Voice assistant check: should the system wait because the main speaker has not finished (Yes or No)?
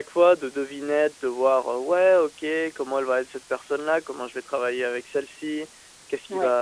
Yes